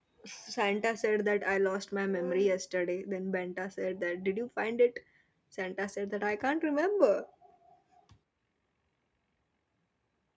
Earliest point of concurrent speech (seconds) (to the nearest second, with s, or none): none